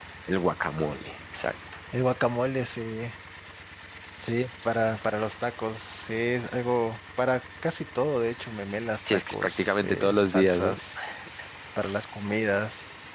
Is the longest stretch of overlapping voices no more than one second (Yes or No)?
No